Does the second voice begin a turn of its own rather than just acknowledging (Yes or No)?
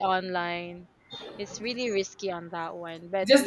Yes